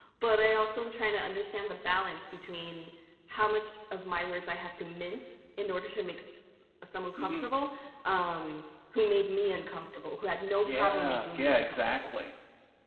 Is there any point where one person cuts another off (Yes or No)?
Yes